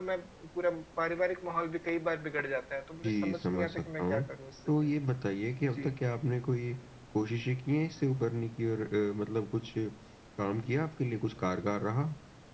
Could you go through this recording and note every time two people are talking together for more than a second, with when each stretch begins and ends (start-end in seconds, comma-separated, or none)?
3.0-4.2